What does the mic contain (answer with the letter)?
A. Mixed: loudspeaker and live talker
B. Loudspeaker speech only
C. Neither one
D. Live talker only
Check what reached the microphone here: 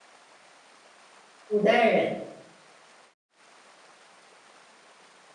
D